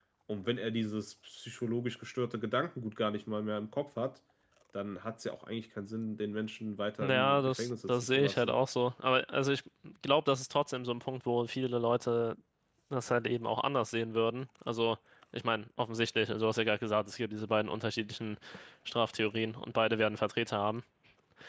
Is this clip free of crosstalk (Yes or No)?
No